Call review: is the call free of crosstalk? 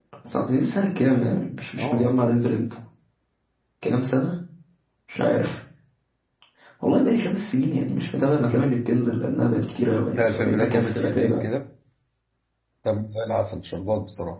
No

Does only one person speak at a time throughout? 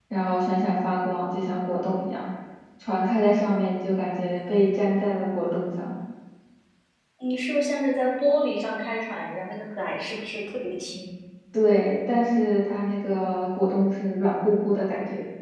Yes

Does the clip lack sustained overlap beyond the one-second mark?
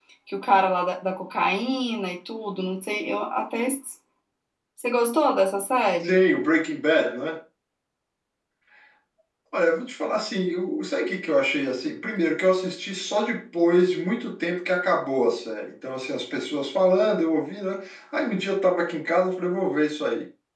Yes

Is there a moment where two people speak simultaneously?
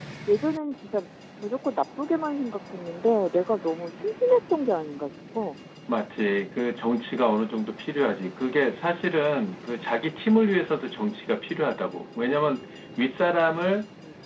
No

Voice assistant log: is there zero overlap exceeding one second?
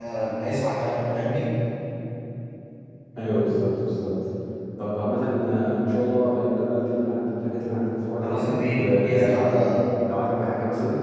No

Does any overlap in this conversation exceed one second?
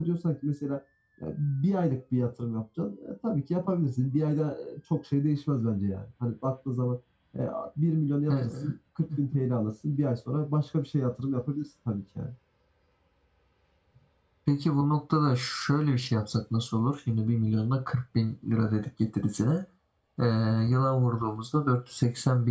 No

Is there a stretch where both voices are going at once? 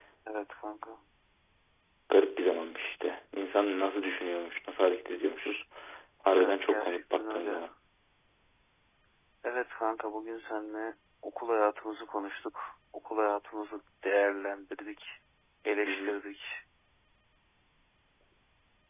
Yes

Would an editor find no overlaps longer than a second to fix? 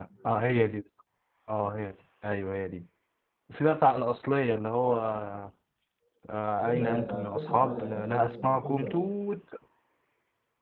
No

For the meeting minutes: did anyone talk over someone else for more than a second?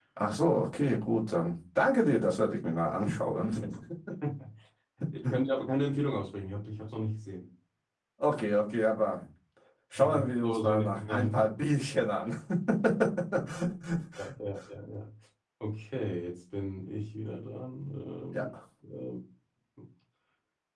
Yes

